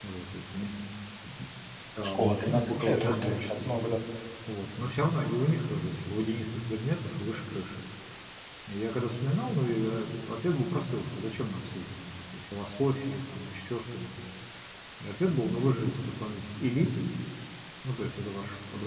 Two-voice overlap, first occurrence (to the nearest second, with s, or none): 2 s